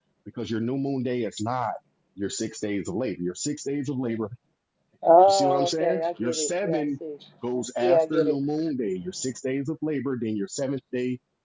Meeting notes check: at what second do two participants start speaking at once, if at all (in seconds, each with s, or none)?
5.3 s